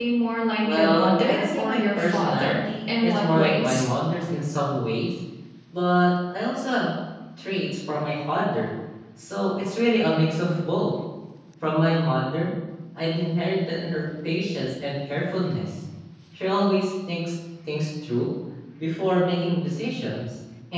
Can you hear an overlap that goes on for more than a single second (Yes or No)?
Yes